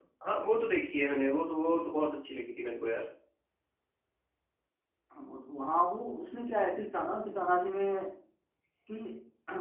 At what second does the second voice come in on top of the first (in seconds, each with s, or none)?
none